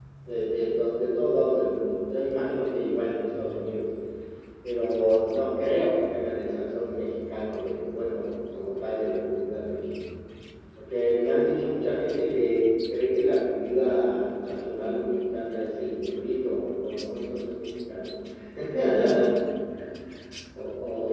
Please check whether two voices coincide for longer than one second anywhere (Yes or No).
No